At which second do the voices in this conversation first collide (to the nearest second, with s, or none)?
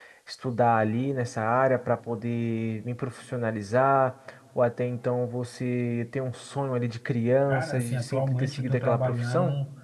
7 s